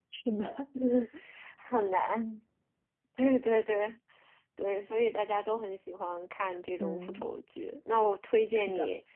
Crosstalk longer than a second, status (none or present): none